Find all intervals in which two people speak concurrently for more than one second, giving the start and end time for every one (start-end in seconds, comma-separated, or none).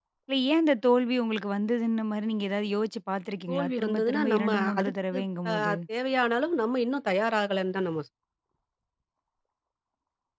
3.5-5.2